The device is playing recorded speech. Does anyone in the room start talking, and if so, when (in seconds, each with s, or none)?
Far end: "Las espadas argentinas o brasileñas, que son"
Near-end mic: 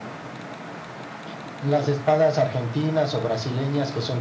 none